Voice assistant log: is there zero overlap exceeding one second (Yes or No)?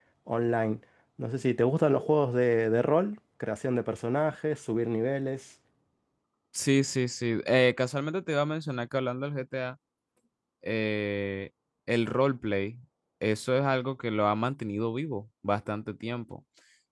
Yes